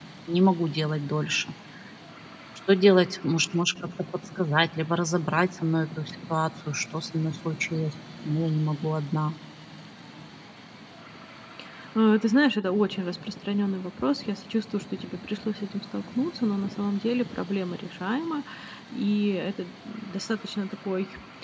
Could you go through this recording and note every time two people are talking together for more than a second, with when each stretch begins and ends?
none

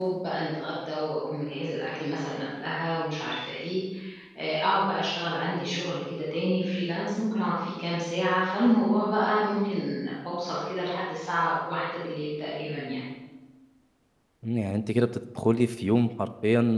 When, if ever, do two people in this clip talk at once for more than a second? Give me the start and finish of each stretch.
none

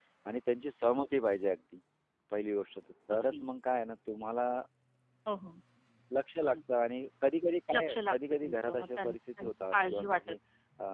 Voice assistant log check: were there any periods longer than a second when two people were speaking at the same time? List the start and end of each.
7.7-10.3

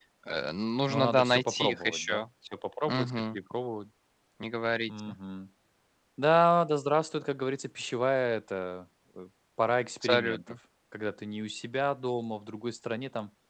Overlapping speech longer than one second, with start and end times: 0.9-2.2

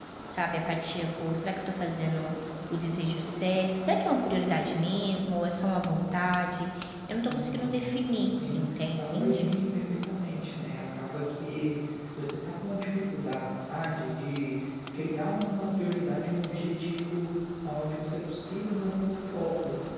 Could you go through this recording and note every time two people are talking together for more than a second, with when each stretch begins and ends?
8.3-9.5

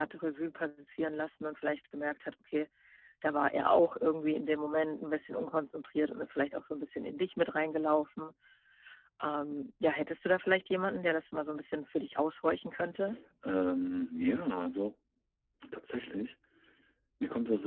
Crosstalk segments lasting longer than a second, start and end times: none

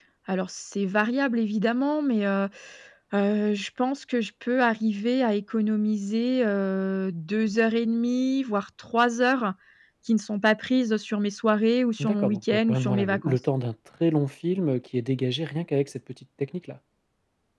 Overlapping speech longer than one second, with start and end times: 12.0-13.4

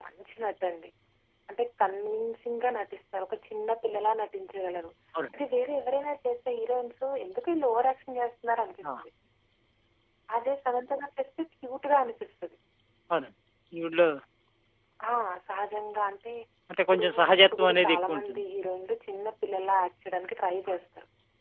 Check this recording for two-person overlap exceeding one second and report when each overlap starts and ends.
16.9-18.4

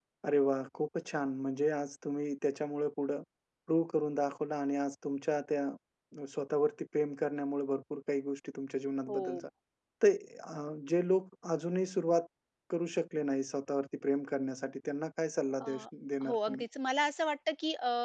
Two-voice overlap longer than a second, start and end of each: none

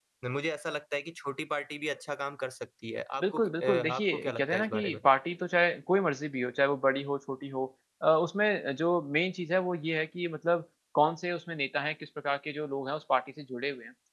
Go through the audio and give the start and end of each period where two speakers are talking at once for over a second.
3.2-5.0

